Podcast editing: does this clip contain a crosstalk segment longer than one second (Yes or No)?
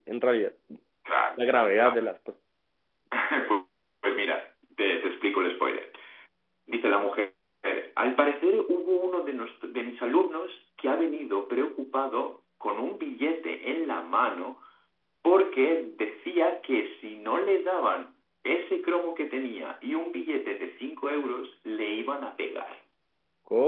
No